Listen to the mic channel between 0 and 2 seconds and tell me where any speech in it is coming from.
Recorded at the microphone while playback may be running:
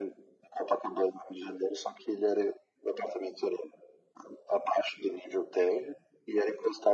echo only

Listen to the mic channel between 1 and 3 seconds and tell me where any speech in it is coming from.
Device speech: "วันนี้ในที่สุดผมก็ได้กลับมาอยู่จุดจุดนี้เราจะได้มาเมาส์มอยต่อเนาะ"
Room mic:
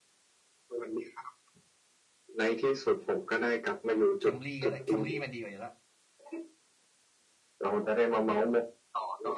echo only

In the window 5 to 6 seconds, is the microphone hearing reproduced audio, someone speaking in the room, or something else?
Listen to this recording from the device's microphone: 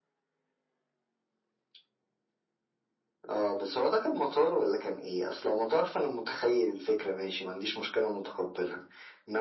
echo only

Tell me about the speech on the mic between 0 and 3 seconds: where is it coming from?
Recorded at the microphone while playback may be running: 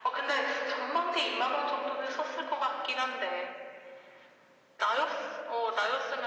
echo only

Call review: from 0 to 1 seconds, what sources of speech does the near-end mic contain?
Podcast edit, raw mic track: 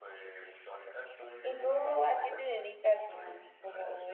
echo only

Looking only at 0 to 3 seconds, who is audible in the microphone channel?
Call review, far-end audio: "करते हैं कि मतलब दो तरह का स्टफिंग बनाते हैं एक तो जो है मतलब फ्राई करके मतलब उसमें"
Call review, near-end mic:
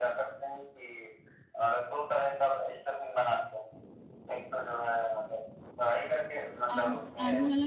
echo only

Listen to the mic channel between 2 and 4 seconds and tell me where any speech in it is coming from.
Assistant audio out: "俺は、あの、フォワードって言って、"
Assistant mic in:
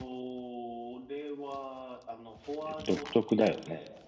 both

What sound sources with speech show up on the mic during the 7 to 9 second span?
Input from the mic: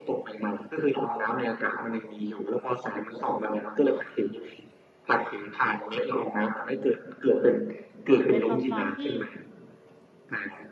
both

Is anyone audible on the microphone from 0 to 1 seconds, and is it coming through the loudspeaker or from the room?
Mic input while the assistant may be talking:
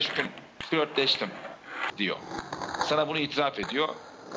echo only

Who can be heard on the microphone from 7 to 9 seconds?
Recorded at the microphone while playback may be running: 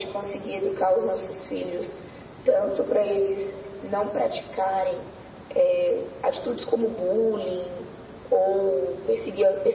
echo only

